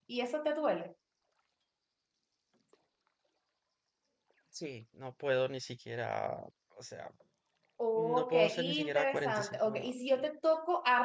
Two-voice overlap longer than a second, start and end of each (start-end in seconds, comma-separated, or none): 8.0-10.2